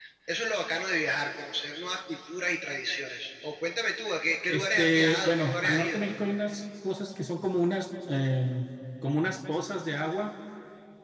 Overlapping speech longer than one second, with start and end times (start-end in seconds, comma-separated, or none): 4.5-6.0